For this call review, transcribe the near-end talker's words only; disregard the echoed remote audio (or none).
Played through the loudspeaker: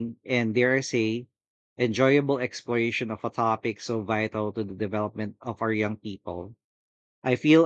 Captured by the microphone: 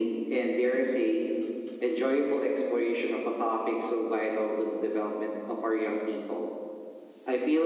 none